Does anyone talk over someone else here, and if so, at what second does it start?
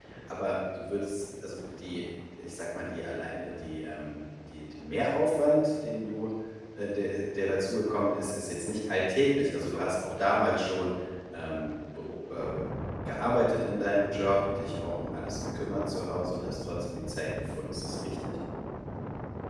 none

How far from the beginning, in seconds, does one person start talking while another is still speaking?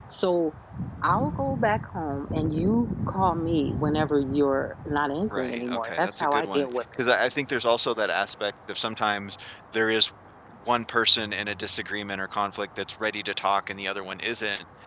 5.3 s

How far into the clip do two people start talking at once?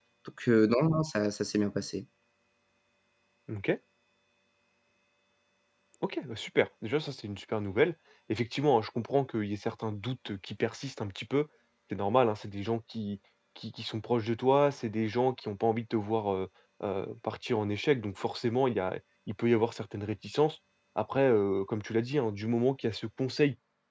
none

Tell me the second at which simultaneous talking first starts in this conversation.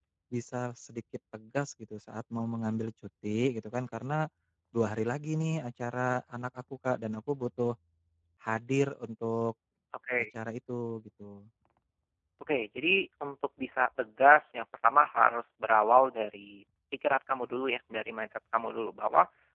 none

